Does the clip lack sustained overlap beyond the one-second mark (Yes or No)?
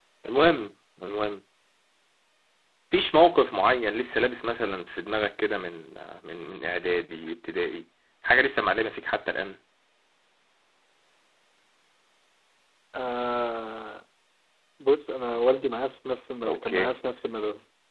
Yes